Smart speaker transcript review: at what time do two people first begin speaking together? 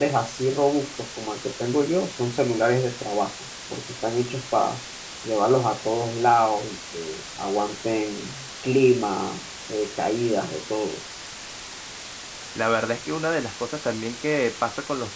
none

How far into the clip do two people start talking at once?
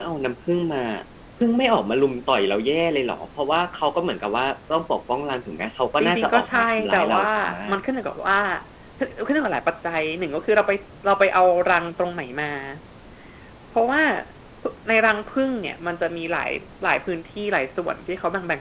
6.0 s

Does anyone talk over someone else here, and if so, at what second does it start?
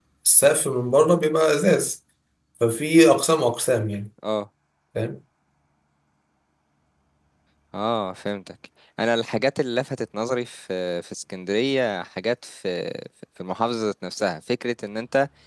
none

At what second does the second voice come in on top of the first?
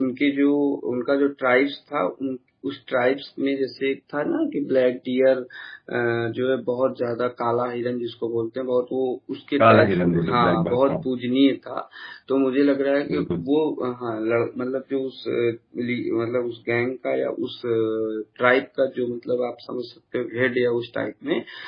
9.6 s

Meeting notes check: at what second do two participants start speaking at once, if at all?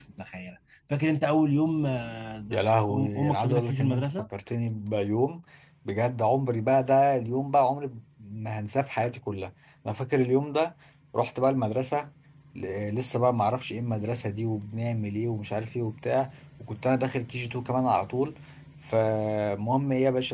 2.5 s

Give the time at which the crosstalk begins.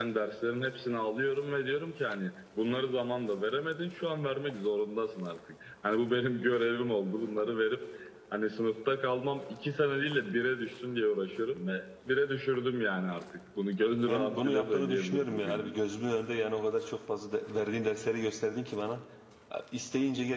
14.0 s

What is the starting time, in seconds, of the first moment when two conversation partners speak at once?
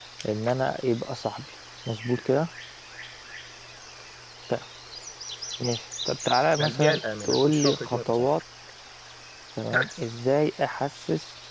6.6 s

